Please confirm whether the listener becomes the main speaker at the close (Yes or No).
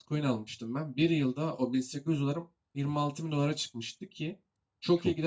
No